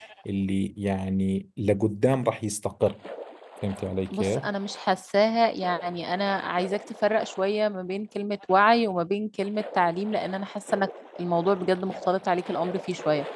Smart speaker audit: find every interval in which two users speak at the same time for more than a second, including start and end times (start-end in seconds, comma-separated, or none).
none